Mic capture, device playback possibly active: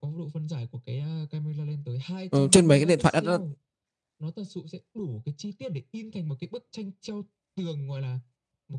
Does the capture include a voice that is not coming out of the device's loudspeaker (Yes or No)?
Yes